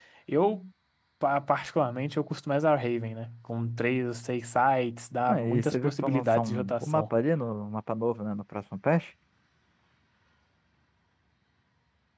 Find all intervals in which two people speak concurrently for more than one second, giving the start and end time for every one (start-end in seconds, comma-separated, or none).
5.3-7.0